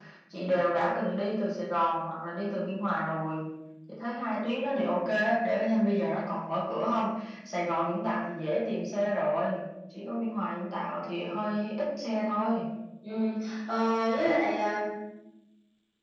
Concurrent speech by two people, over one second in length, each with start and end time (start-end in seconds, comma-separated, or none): none